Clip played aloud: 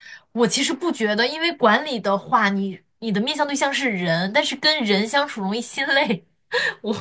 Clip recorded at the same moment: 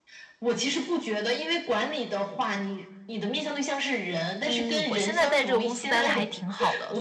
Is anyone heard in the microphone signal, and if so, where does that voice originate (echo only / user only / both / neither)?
both